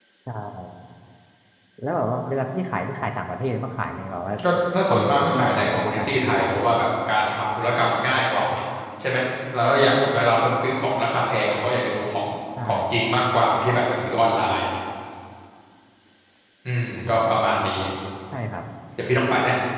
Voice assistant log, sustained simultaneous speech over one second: present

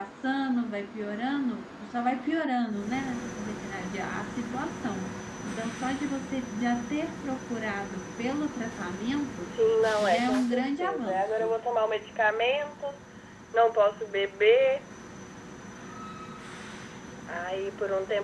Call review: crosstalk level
present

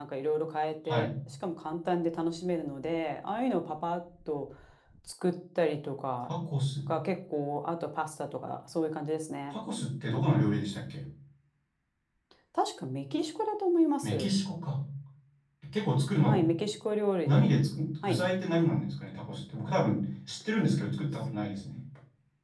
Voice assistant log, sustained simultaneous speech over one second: none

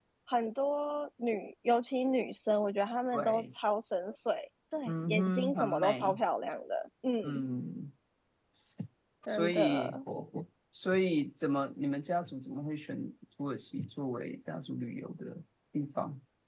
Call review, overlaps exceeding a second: present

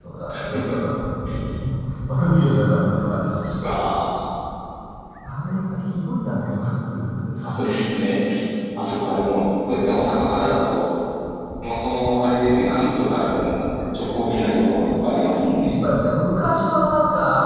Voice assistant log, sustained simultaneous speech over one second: none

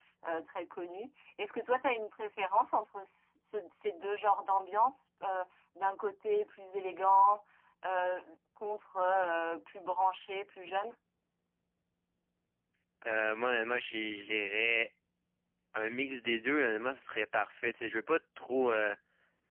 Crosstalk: none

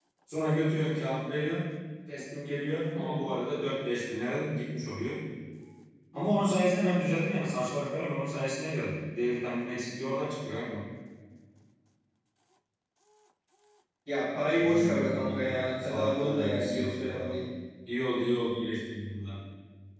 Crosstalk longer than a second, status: present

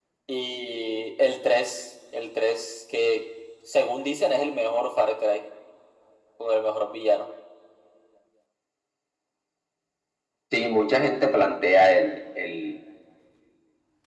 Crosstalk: none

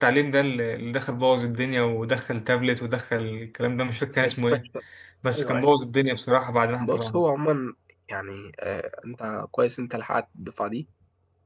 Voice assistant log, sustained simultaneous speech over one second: none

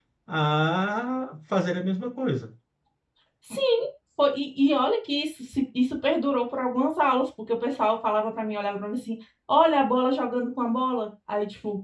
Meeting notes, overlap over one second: none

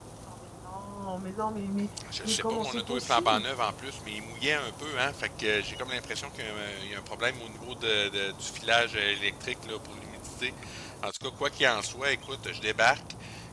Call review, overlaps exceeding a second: present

